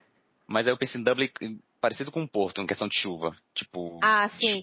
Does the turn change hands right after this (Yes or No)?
Yes